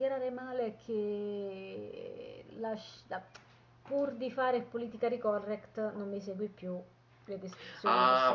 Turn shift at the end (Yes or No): Yes